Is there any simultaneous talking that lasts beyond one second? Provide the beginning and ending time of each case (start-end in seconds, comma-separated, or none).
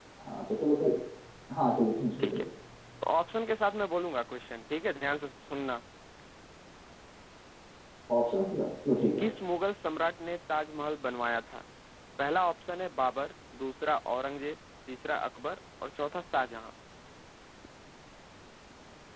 none